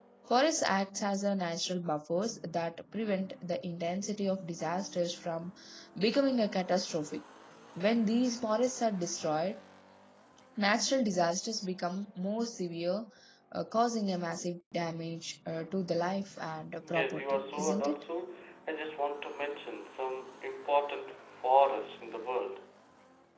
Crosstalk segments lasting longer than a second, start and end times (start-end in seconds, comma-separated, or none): 16.8-18.0